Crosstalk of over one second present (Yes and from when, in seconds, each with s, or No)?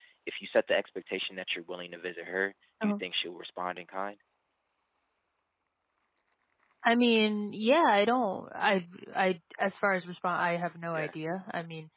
No